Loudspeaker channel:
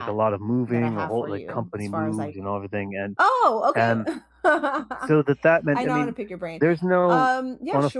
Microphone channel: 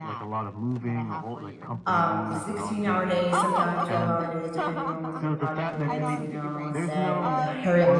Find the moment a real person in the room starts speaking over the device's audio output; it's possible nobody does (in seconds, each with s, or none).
1.9 s